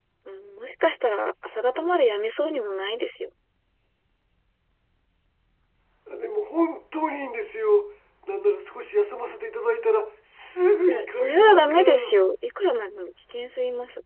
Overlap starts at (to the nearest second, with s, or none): 11 s